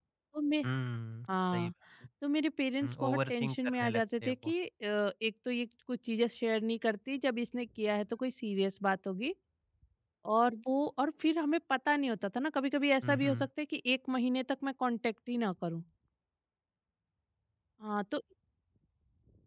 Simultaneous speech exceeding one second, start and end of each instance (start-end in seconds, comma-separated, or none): 2.8-4.5